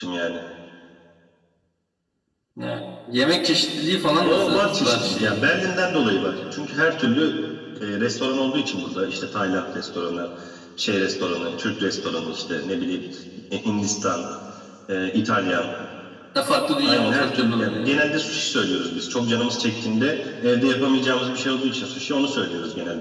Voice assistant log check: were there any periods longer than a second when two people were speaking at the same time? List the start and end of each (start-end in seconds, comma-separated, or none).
4.2-5.5, 16.8-18.0